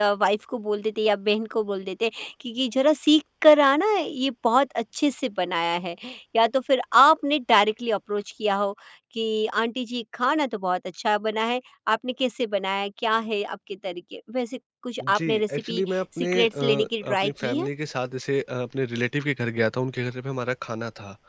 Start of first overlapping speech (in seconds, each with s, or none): 15.0 s